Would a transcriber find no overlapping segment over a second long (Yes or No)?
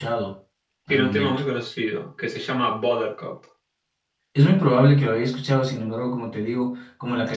Yes